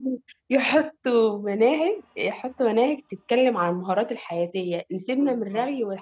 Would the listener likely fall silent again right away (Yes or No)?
Yes